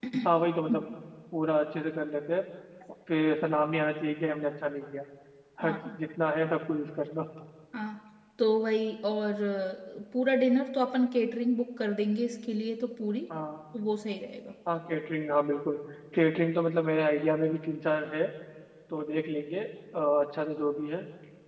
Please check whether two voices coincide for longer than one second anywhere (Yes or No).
No